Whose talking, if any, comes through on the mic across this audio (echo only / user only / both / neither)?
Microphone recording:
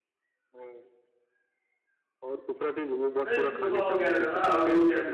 both